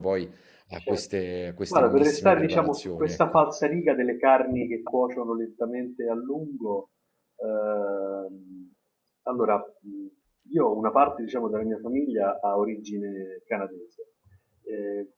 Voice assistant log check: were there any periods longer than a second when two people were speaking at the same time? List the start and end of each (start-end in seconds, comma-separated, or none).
1.7-3.4